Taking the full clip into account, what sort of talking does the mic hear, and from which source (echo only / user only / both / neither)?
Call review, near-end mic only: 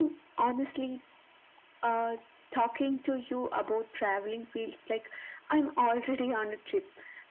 echo only